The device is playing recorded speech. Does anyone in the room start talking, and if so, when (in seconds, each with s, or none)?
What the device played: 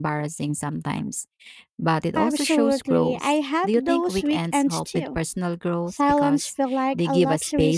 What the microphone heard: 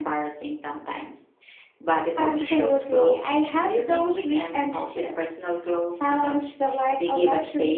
none